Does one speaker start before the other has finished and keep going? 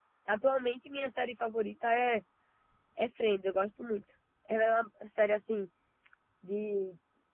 No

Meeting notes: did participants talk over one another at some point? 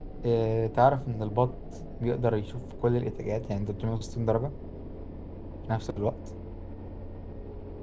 No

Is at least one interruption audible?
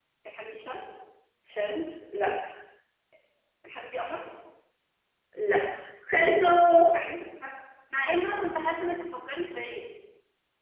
No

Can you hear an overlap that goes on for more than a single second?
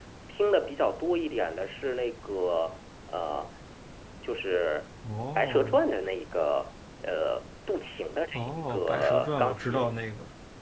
Yes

